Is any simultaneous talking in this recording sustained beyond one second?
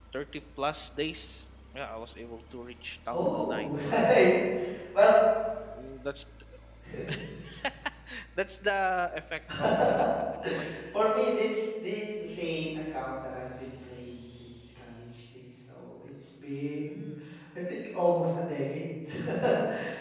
Yes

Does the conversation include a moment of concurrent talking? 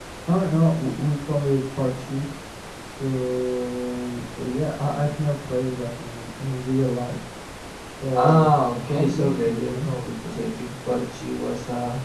Yes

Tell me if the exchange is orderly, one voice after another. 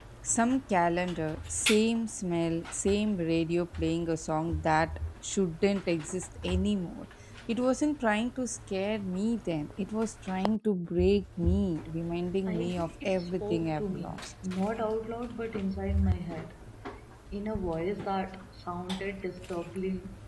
No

